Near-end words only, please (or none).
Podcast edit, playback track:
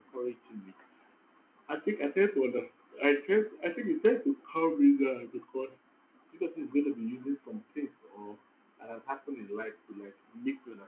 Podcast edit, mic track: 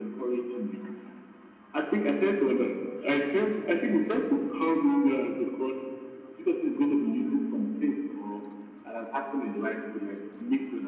none